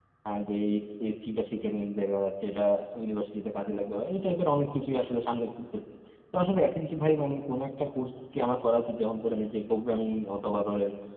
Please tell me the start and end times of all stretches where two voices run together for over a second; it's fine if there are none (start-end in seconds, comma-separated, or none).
none